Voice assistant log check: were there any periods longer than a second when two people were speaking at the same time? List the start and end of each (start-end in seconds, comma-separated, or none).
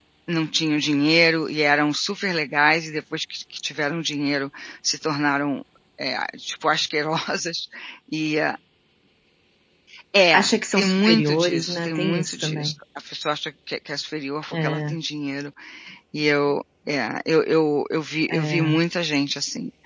10.3-12.7